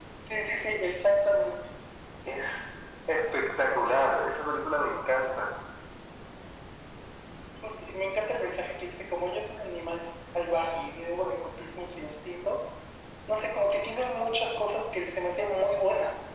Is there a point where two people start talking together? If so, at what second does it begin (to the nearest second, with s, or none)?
none